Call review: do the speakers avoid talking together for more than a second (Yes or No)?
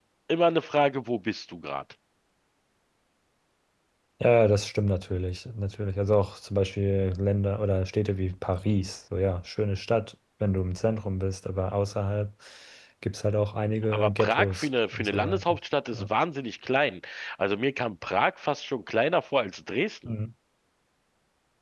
No